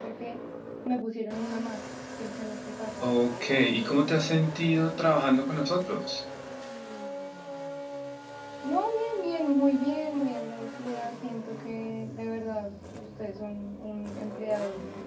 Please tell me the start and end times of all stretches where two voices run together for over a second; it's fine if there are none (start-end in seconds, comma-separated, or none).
none